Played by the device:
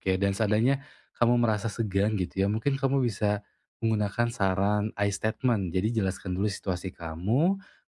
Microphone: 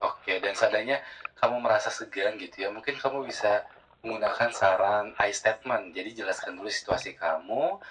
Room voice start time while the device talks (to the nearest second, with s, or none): none